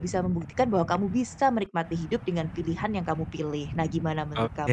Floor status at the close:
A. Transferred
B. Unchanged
A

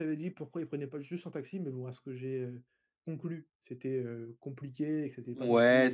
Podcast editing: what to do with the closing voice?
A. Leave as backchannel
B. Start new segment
B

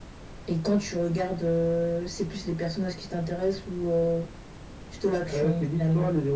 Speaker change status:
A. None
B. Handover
B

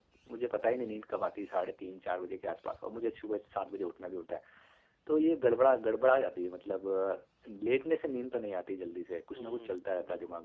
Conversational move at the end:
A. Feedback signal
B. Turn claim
B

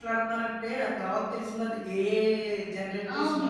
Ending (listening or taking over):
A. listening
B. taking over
B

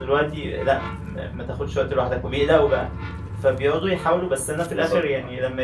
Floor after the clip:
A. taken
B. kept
B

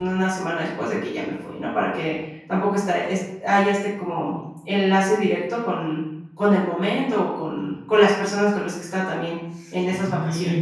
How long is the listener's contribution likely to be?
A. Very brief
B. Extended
B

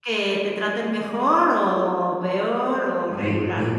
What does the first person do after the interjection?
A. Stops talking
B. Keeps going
A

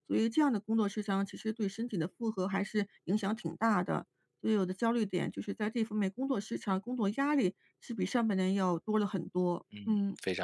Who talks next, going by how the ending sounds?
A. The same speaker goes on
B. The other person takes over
B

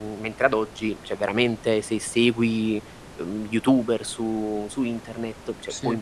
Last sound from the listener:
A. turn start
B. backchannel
B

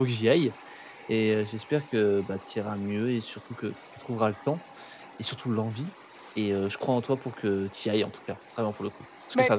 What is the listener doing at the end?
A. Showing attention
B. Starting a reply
A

